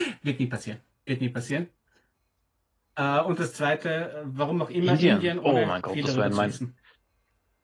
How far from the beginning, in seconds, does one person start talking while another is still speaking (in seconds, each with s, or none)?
4.8 s